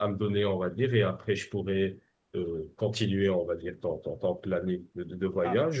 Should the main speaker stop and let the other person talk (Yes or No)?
No